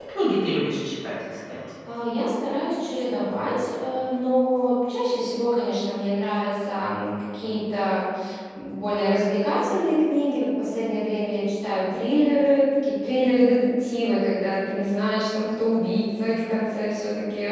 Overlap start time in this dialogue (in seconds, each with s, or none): none